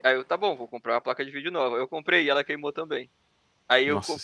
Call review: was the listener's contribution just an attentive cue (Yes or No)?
Yes